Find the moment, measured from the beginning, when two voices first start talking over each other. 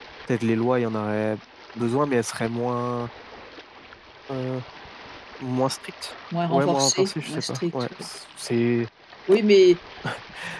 6.3 s

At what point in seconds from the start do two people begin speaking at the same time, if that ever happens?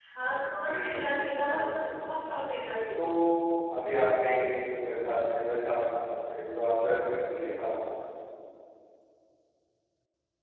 0.7 s

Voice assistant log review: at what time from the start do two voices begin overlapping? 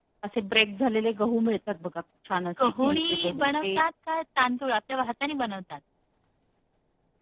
2.6 s

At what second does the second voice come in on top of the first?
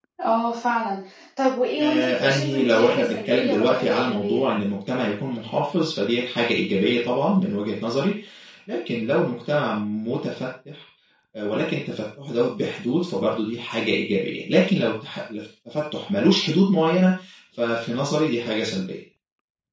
1.8 s

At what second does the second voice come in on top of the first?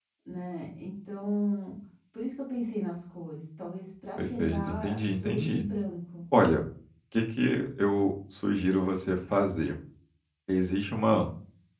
4.2 s

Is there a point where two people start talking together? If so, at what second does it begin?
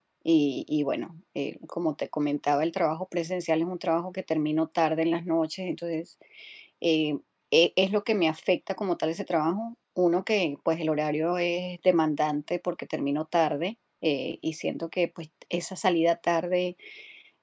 none

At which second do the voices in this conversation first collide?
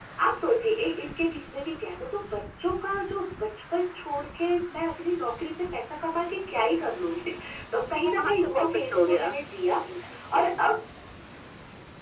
8.0 s

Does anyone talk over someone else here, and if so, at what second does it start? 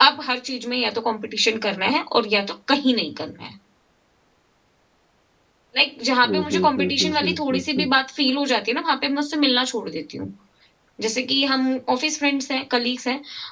6.2 s

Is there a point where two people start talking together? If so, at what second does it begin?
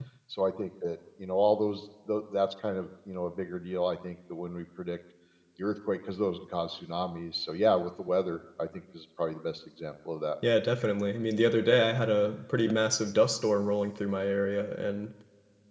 none

